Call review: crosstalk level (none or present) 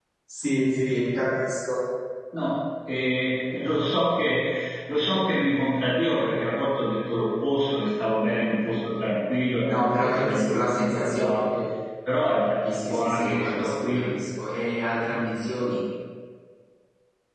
present